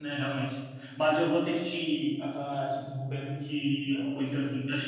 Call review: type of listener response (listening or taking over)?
listening